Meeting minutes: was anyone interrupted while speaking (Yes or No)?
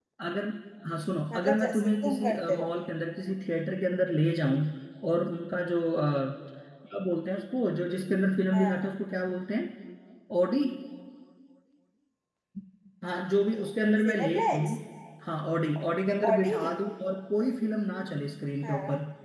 Yes